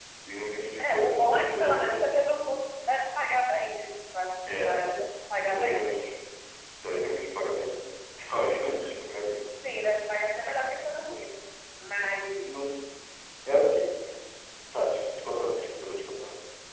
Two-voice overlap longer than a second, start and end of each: 0.8-2.1

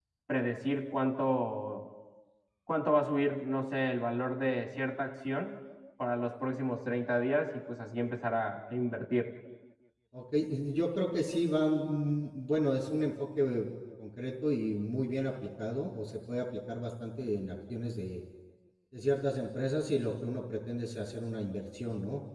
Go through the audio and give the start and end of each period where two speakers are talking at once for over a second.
none

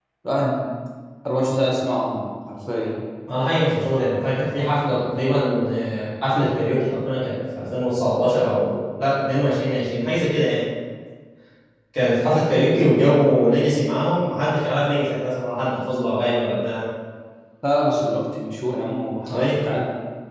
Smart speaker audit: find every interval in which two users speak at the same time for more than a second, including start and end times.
none

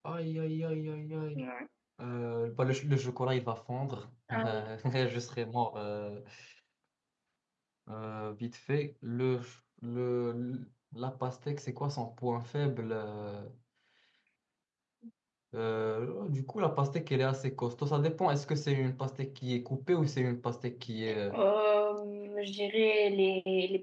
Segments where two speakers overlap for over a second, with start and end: none

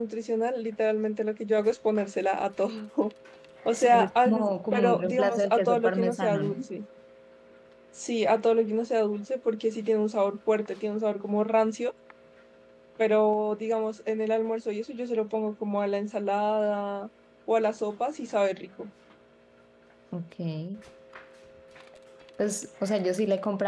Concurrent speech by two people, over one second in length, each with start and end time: 3.7-6.6

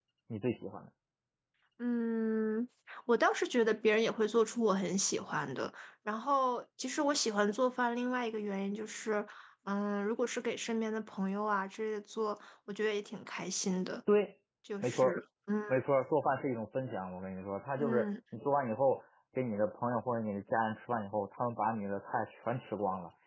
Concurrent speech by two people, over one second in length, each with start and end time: none

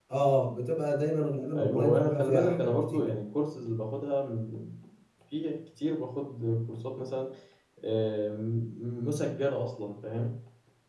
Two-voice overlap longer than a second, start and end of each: 1.6-3.1

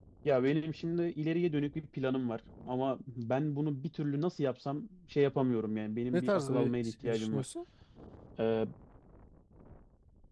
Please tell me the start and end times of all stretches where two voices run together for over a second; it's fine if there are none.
6.1-7.4

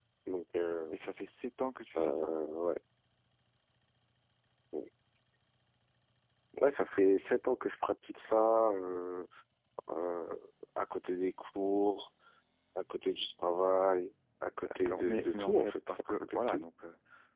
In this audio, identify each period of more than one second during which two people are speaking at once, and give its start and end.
14.7-16.6

